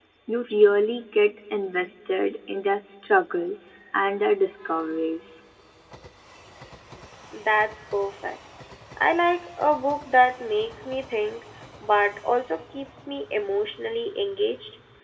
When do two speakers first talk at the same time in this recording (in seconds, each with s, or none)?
none